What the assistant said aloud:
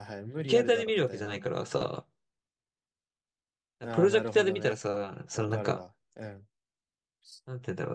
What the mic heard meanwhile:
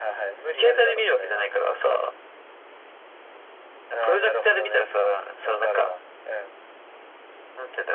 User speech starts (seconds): none

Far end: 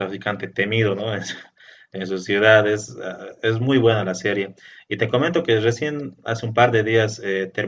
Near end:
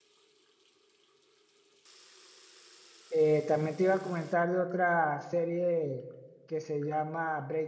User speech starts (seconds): 3.1 s

